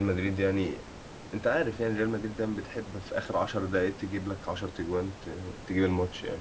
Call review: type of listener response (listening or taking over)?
listening